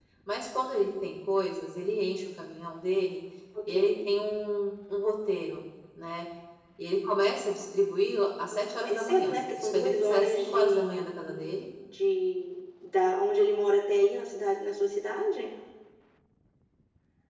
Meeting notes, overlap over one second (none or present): present